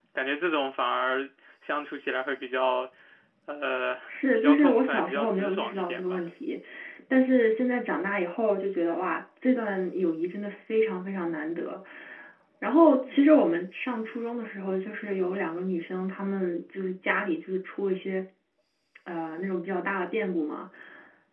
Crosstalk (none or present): present